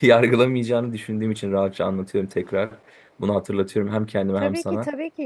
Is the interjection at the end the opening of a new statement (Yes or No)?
Yes